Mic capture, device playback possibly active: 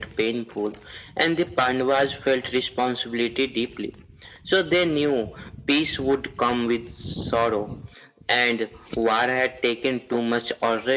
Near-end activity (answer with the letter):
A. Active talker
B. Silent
B